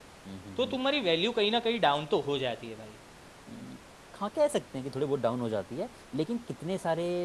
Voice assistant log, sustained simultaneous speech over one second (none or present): none